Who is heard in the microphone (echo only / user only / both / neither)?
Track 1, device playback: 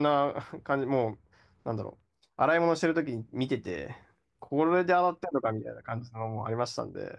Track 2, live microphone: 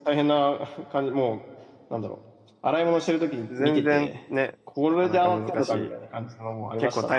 both